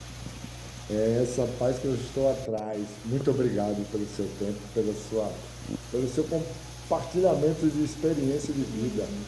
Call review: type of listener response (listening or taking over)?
taking over